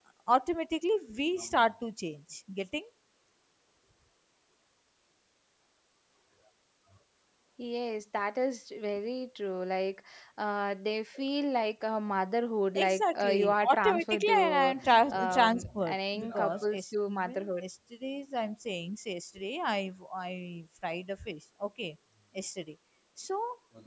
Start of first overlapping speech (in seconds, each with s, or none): 12.8 s